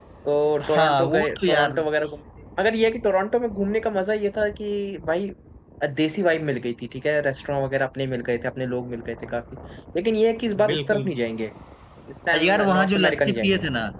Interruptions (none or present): present